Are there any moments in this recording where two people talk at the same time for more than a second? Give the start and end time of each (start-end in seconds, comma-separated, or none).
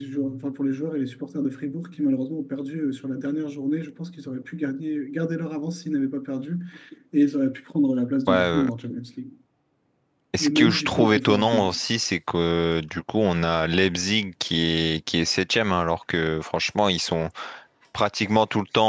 10.4-11.7